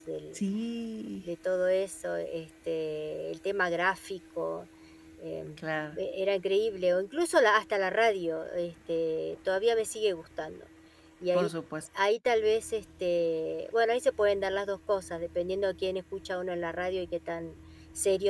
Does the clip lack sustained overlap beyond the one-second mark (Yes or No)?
Yes